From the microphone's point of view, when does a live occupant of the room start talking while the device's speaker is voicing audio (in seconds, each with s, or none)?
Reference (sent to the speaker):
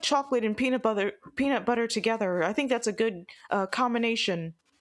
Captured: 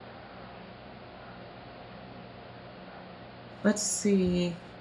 3.6 s